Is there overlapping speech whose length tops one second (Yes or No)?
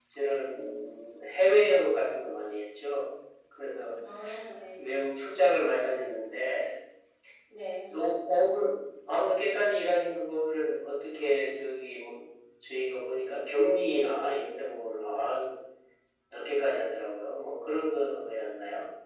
No